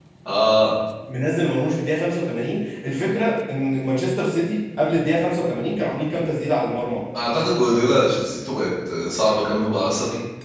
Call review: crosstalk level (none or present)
none